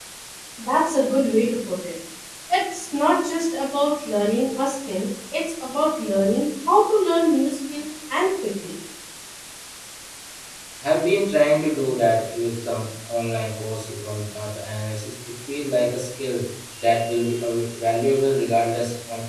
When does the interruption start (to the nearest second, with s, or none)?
none